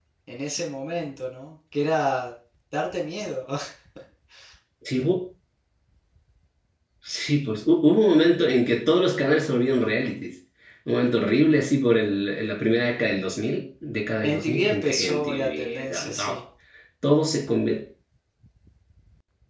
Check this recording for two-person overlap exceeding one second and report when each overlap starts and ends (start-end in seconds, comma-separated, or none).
14.2-16.4